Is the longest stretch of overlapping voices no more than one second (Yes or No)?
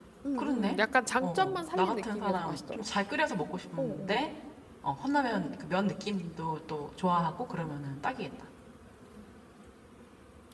No